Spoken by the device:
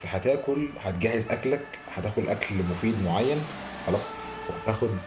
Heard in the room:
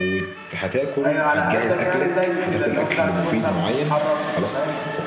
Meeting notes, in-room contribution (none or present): present